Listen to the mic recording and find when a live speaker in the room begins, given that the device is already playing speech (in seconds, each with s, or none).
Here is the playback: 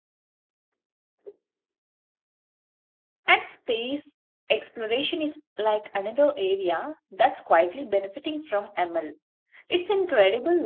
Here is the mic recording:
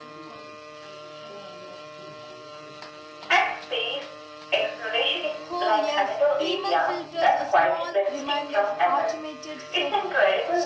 5.5 s